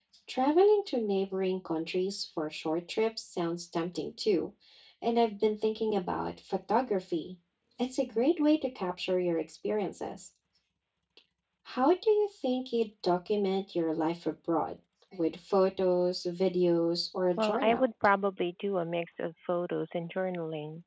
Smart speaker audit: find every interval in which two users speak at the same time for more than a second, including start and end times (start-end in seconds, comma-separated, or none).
none